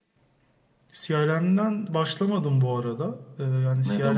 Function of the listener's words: listening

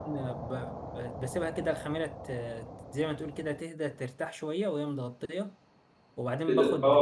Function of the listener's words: taking over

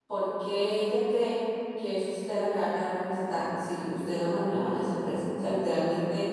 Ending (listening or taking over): listening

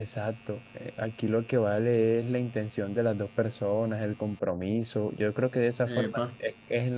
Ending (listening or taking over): listening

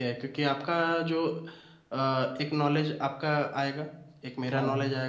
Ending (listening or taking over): listening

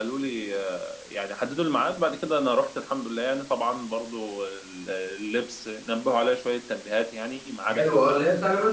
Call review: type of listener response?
taking over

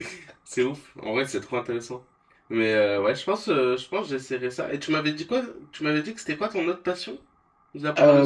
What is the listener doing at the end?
taking over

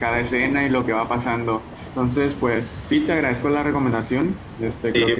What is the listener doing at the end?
listening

